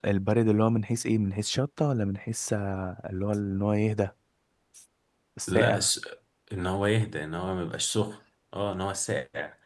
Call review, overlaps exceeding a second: none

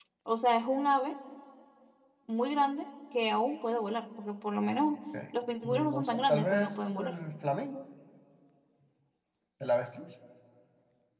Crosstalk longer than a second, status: present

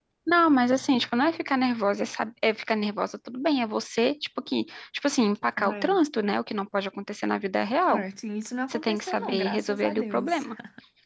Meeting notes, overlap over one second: present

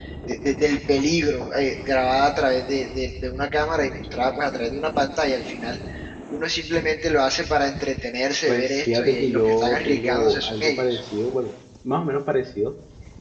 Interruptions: present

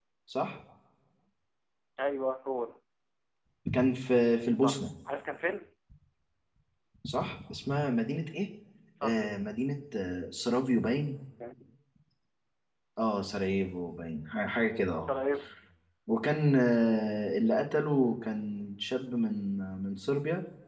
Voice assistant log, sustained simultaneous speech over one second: none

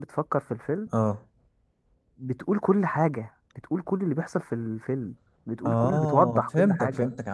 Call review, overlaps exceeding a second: present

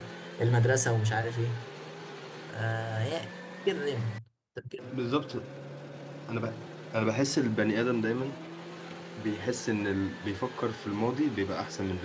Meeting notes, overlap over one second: none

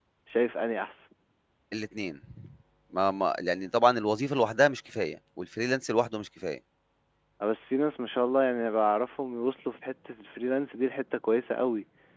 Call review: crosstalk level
none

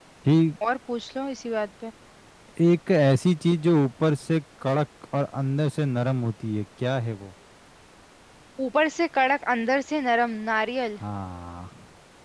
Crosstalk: none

